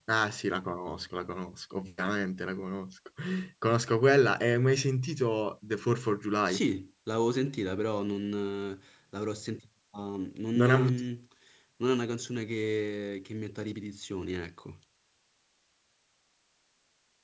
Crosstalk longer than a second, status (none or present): none